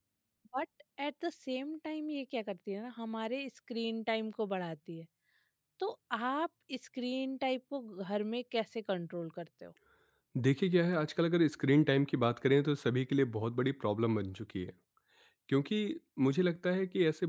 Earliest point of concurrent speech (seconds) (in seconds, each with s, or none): none